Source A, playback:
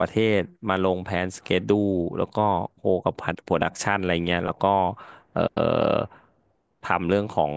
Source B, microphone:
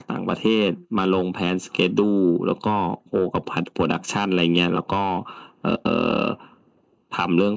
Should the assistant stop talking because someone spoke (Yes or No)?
No